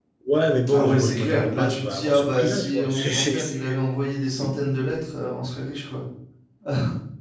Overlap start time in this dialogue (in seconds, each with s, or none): 0.7 s